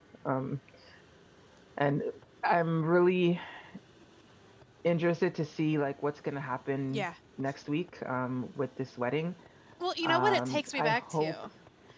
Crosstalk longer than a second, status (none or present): present